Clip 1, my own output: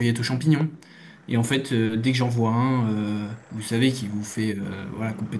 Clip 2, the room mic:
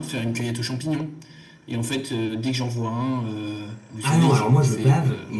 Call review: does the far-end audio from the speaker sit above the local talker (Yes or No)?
No